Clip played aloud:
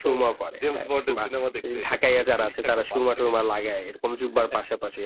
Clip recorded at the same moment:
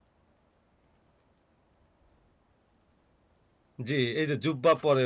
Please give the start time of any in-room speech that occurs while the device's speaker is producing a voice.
3.9 s

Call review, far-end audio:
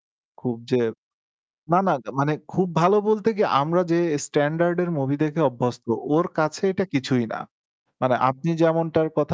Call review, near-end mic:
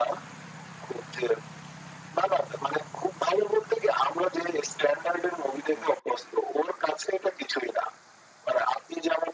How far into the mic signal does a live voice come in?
none

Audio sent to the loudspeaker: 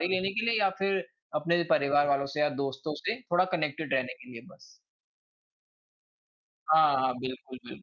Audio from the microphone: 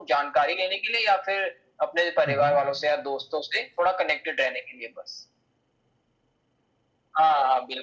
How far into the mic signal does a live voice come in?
2.2 s

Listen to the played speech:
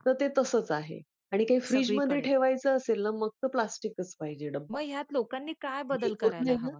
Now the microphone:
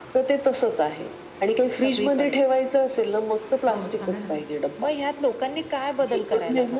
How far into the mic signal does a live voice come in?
3.7 s

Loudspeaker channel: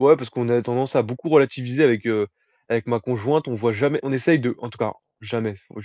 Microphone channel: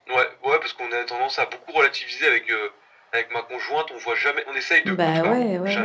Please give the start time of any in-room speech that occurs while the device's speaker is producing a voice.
4.8 s

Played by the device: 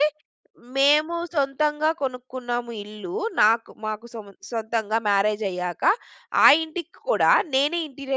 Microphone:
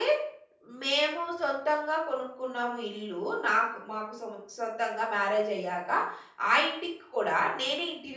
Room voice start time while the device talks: none

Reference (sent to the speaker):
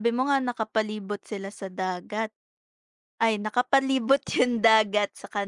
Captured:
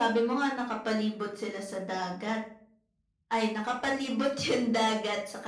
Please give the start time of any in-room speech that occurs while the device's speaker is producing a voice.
none

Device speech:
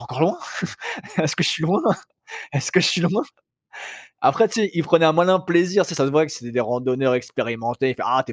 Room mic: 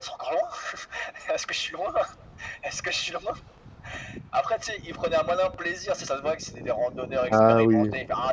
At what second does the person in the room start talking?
7.3 s

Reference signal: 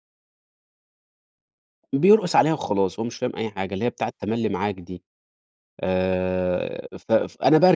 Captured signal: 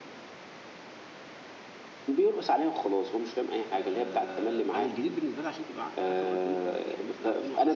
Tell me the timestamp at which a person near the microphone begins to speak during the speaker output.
3.7 s

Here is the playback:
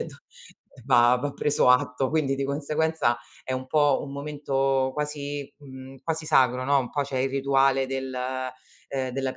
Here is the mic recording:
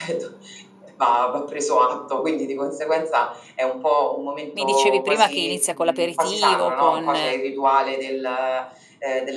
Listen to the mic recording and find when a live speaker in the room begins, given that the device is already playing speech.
4.5 s

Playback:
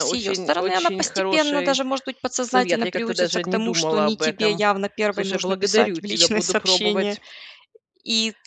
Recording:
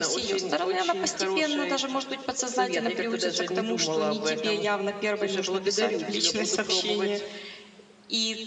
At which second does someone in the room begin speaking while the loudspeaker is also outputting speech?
none

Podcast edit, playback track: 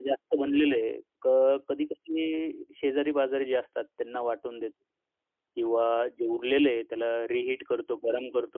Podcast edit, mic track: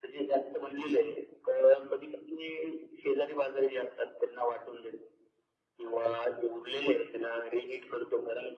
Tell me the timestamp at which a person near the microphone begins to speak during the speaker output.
none

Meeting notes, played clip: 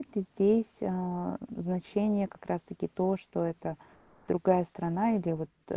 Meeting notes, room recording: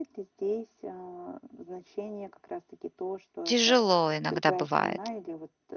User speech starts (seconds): 3.4 s

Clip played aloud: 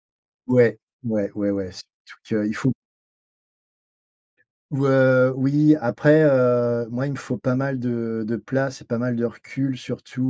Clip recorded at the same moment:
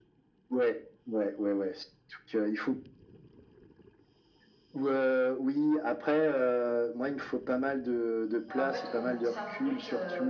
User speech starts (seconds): 8.4 s

